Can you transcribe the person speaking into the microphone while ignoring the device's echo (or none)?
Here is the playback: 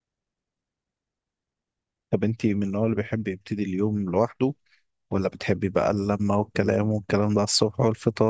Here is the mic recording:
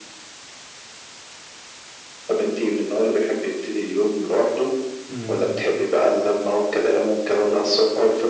مم.